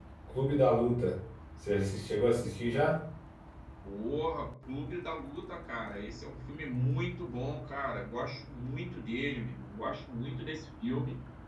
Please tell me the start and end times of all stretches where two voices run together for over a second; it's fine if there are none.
none

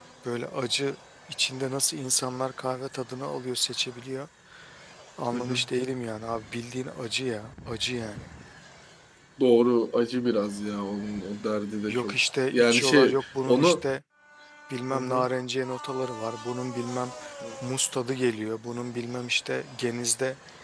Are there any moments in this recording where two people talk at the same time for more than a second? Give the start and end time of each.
12.5-13.8

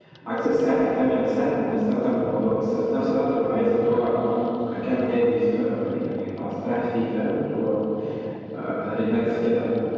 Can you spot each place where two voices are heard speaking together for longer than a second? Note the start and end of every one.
none

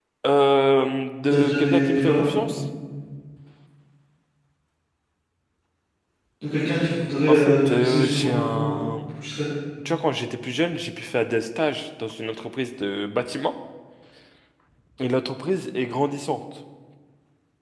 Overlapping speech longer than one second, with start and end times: 1.3-2.6, 7.3-8.9

